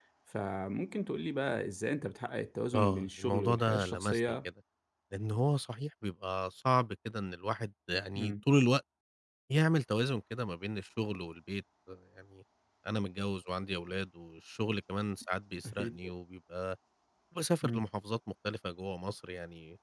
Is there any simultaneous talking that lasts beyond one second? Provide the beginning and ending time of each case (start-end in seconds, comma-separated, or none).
2.7-4.4